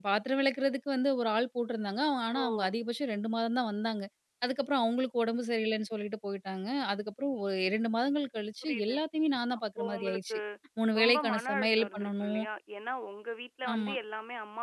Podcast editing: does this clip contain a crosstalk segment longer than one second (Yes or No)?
Yes